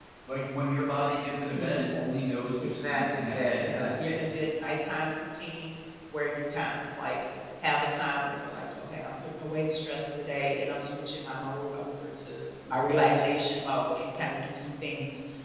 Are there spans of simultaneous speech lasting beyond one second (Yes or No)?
Yes